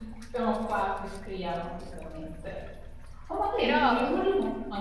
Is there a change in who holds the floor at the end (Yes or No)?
No